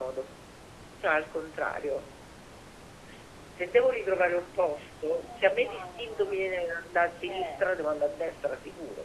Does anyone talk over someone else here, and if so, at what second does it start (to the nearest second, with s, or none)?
5 s